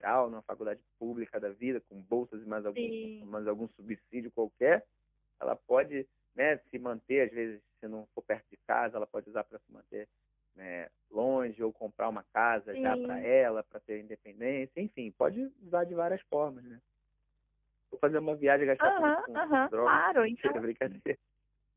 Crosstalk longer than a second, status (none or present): present